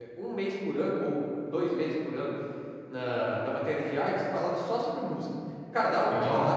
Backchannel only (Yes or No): Yes